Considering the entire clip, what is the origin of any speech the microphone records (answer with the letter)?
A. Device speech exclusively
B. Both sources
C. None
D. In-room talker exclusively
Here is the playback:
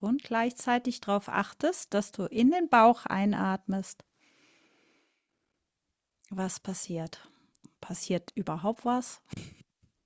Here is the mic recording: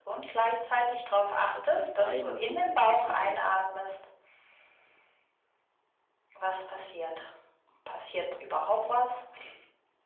B